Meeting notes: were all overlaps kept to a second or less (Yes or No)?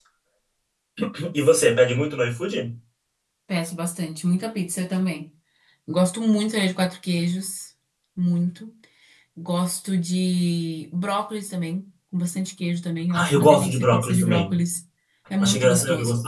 No